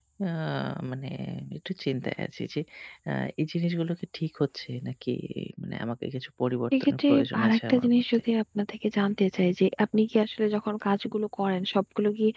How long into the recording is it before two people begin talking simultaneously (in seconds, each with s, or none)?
6.7 s